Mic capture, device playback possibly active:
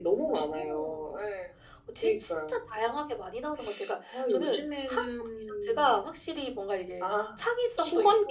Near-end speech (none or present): none